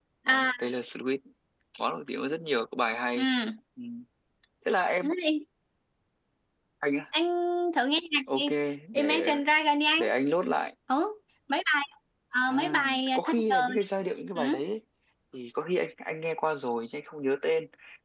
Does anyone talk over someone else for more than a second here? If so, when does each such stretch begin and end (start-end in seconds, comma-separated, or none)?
12.5-13.8